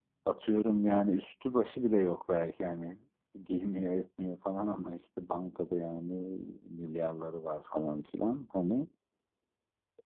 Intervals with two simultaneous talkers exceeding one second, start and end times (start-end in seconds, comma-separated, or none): none